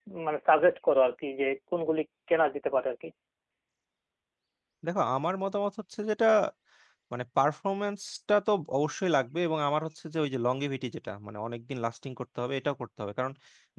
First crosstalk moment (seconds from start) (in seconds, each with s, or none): none